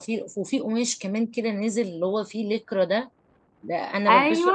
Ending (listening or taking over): taking over